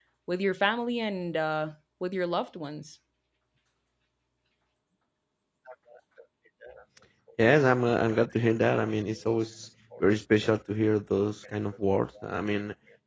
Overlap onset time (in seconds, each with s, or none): none